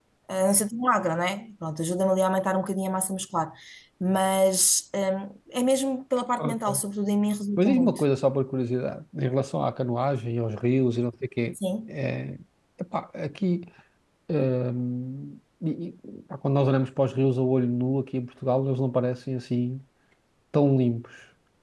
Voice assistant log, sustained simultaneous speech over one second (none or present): none